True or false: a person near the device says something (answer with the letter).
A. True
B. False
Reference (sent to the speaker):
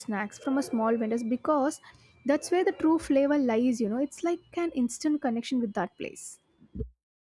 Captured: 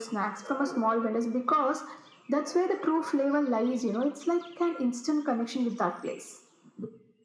B